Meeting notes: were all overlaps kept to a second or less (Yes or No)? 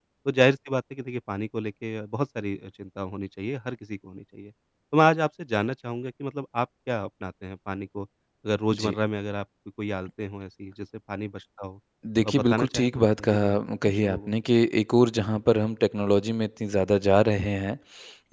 No